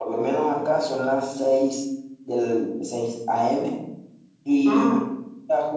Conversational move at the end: listening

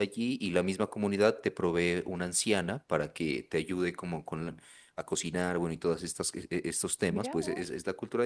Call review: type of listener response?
taking over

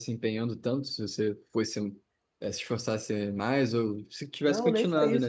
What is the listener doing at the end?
taking over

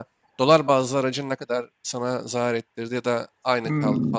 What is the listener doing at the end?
taking over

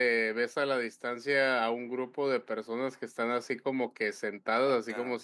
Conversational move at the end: listening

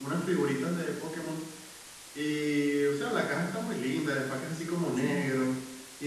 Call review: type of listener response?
listening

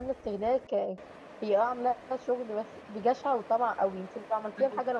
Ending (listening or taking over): listening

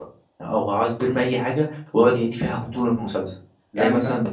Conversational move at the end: listening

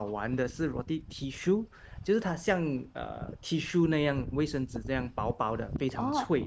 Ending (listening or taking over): taking over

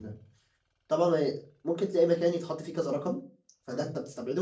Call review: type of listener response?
listening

